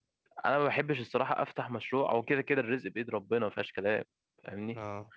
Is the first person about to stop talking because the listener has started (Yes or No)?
No